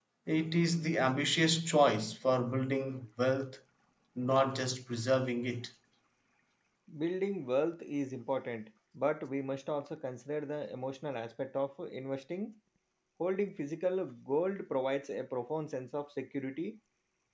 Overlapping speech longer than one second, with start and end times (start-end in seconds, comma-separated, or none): none